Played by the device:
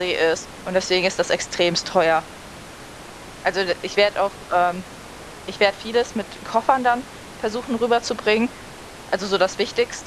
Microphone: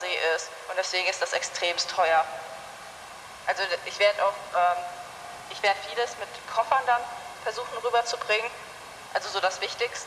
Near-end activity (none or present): none